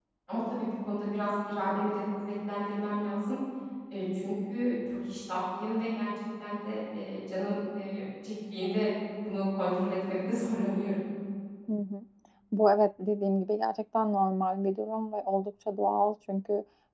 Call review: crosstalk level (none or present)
none